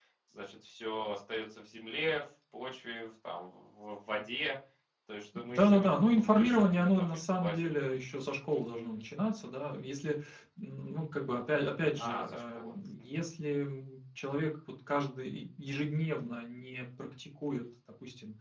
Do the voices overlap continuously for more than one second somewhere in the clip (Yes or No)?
Yes